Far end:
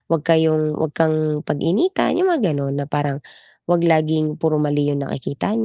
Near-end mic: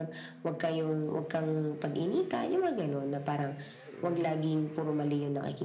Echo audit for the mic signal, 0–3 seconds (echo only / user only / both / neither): echo only